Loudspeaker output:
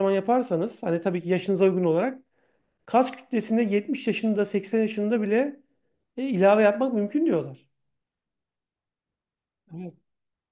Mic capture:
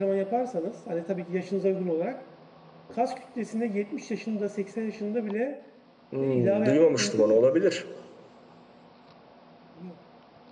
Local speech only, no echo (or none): Hmm, duymamıştım onu olabilir.